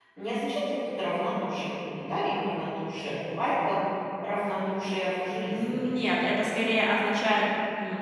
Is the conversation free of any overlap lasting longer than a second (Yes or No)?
Yes